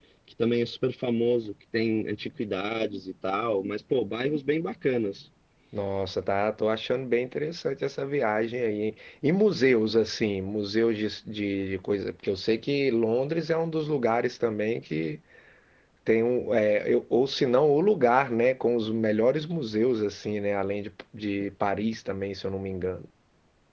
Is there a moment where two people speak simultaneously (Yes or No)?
No